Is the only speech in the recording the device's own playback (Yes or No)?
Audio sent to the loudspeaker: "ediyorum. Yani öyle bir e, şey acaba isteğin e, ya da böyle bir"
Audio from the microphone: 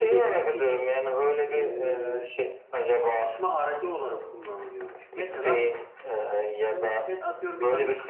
No